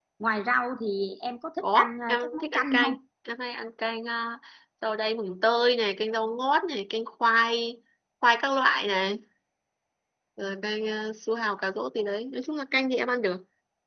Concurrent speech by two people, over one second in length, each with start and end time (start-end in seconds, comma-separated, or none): 1.6-2.9